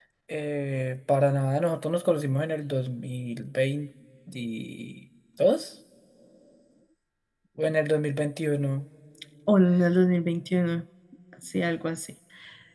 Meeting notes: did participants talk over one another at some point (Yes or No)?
No